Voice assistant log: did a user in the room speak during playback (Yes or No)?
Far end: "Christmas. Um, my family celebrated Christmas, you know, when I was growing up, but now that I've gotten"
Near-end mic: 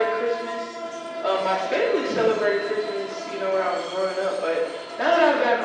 No